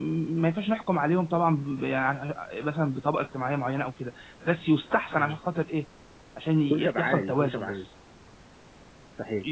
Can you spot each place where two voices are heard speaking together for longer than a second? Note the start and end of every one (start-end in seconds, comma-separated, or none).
6.6-7.9